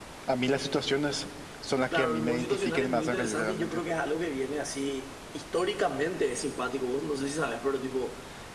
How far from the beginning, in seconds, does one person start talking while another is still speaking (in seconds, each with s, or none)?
1.9 s